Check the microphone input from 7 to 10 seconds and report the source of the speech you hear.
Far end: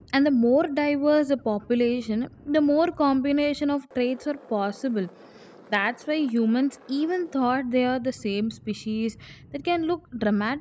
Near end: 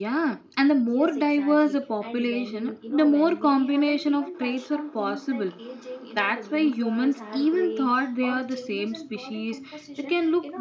both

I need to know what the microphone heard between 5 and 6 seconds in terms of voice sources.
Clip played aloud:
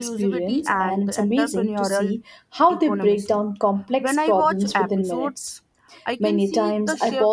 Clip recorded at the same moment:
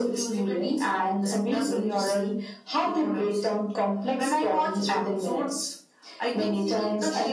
echo only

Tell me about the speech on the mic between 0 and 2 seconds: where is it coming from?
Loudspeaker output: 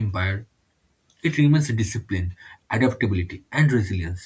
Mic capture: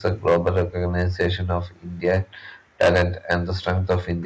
user only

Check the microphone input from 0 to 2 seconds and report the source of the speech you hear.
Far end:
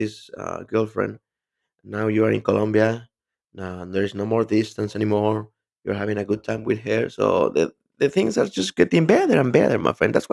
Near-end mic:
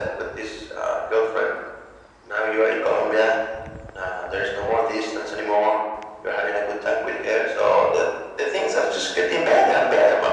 echo only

